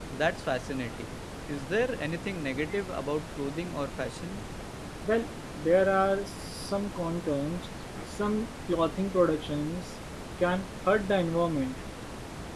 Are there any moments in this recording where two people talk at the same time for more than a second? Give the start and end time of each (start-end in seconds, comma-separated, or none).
none